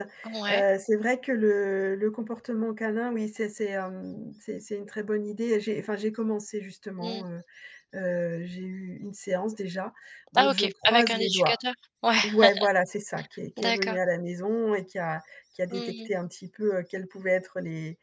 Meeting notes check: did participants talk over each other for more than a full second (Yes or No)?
Yes